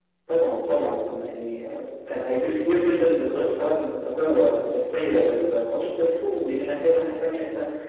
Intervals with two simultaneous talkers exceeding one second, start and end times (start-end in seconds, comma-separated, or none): none